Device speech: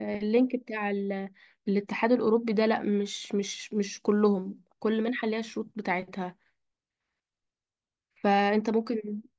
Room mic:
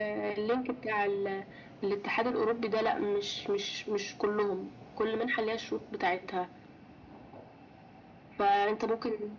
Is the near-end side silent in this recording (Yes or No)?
Yes